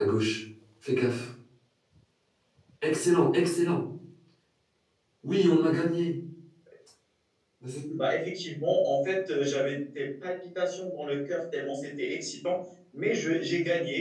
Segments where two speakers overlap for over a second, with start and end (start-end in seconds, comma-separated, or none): none